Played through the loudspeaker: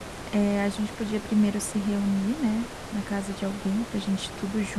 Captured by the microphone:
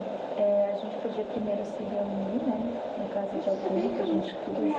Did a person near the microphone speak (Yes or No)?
Yes